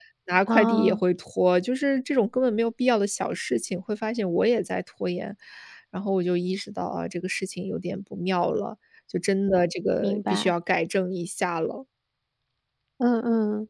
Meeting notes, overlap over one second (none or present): none